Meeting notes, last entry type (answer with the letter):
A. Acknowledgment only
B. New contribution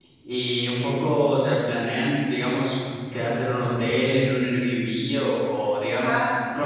A